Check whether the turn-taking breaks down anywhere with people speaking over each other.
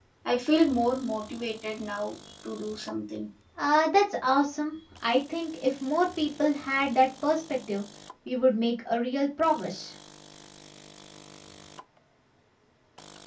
No

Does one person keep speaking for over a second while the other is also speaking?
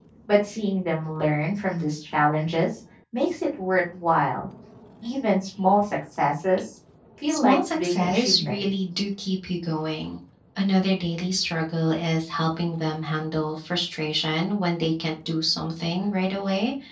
Yes, from 7.3 s

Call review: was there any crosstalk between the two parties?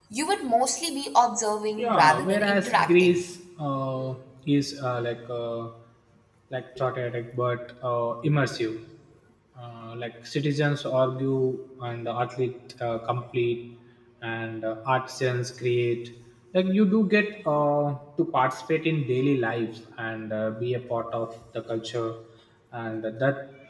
Yes, from 1.8 s

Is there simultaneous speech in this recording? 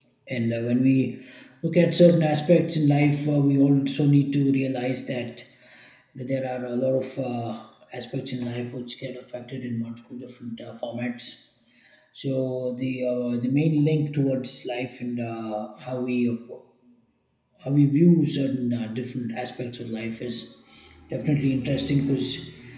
No

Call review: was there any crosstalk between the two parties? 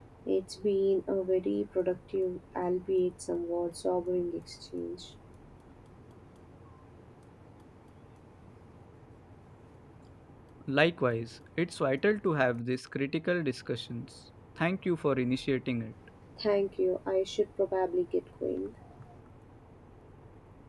No

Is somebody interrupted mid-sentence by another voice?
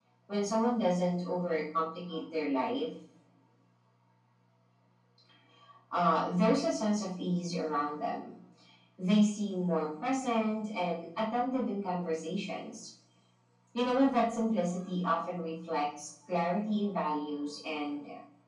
No

